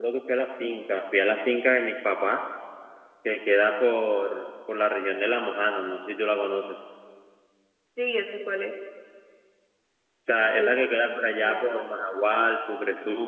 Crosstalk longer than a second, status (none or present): present